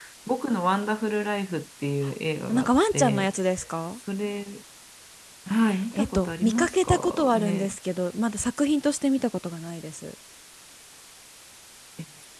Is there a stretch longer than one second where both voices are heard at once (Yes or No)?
Yes